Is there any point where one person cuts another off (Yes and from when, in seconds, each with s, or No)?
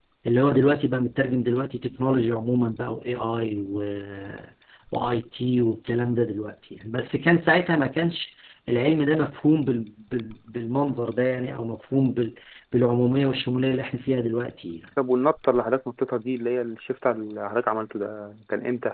No